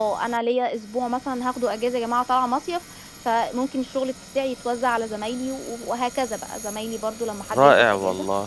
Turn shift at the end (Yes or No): Yes